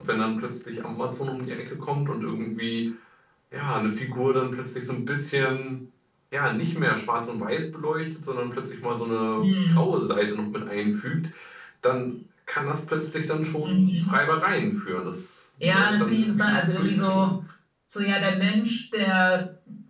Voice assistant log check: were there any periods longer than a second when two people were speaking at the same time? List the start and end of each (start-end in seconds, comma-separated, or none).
15.6-17.3